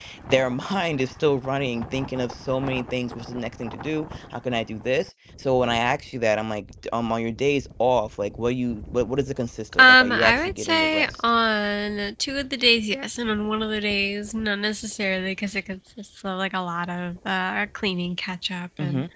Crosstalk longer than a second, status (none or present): present